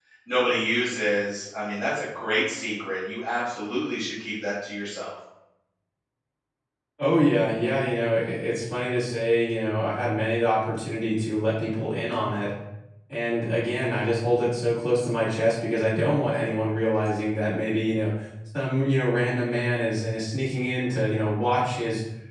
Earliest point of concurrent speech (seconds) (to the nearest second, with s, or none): none